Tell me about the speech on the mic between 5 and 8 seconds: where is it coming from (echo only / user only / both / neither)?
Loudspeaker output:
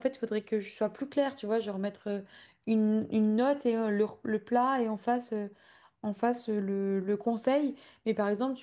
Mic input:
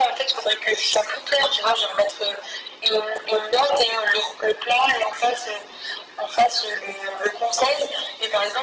echo only